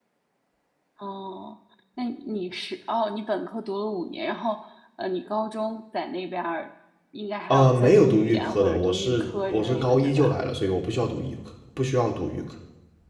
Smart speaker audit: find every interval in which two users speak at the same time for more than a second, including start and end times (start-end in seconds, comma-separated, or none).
7.5-10.4